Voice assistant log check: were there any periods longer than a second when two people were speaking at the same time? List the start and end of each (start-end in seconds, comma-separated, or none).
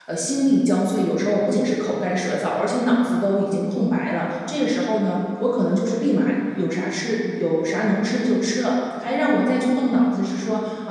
none